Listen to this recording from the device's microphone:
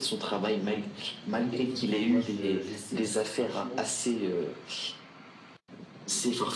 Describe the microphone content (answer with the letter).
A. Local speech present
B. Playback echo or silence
A